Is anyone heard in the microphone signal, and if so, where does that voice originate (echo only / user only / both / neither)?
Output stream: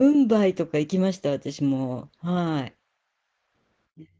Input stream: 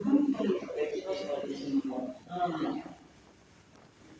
both